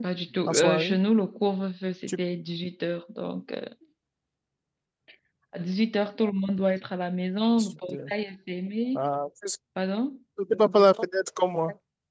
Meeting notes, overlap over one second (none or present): none